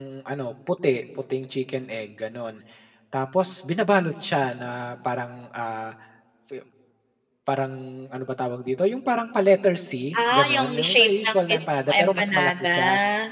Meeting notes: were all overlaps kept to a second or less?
No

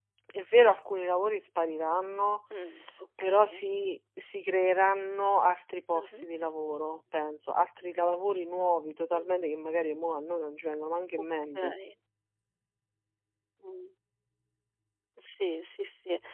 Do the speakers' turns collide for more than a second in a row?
No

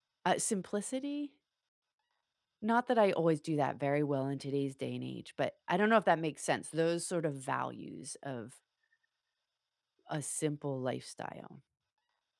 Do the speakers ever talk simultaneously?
No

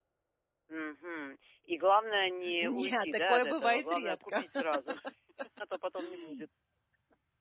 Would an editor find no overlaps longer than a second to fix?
No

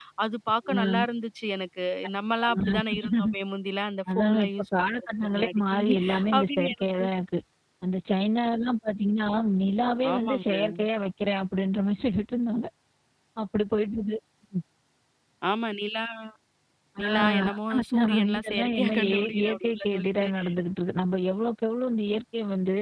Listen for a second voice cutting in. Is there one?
Yes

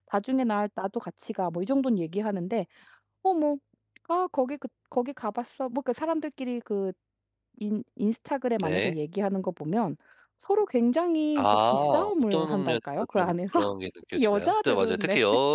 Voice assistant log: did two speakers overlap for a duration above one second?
Yes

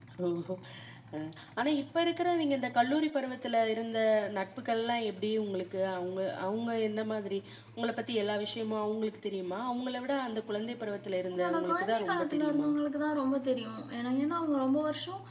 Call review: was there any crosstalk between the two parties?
Yes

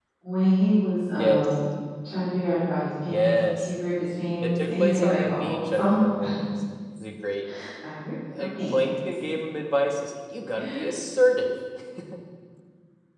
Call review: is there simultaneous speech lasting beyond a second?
Yes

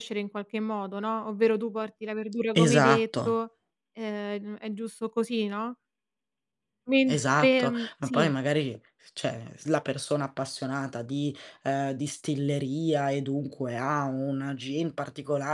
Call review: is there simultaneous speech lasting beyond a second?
Yes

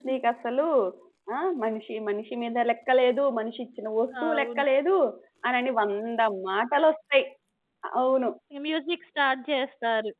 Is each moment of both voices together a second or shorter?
Yes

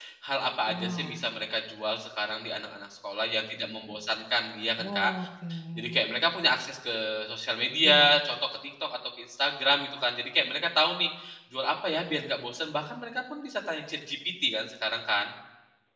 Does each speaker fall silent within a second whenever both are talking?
Yes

